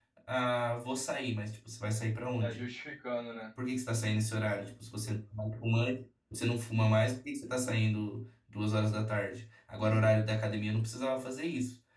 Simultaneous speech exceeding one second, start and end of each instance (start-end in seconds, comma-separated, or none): none